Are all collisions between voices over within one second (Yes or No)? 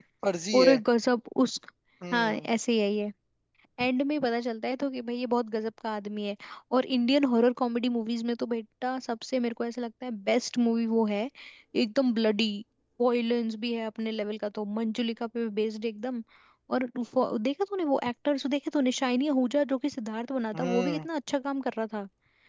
Yes